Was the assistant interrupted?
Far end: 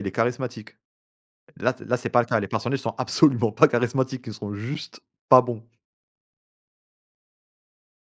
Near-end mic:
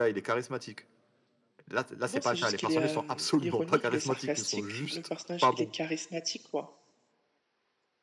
Yes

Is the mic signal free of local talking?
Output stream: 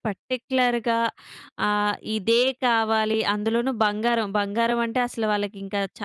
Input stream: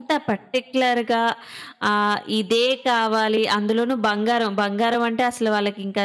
Yes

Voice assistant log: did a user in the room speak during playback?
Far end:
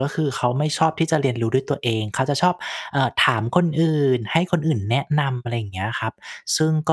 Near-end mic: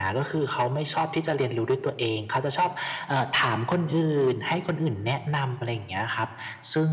No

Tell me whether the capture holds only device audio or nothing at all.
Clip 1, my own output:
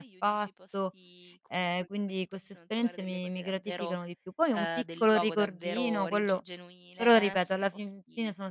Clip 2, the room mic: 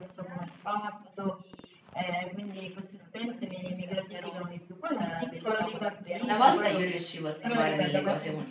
No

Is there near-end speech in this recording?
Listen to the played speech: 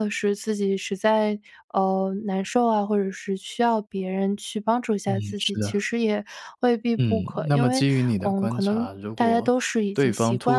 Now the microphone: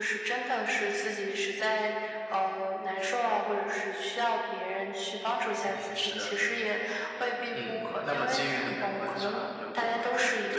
No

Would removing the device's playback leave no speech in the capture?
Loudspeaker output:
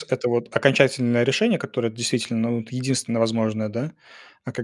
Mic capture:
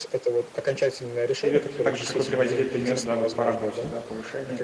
No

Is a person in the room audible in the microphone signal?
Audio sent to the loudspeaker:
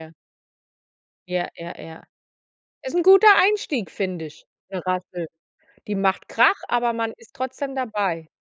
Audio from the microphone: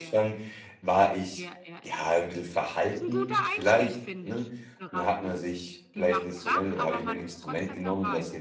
Yes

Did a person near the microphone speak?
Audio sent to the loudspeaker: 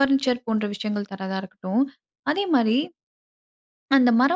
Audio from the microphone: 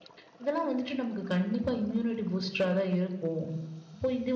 Yes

